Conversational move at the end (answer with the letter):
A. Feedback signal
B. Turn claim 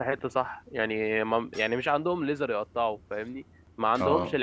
A